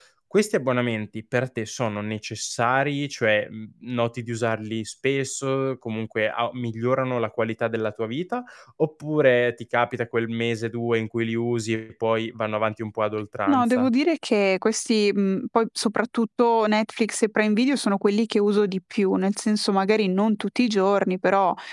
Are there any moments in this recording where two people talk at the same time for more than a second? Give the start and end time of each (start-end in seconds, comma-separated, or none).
none